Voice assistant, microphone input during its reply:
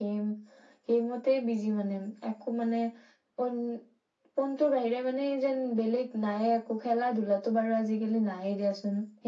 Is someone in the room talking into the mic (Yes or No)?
No